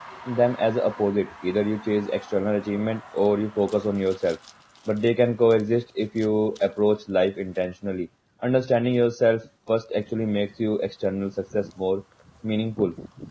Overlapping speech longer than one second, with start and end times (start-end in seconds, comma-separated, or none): none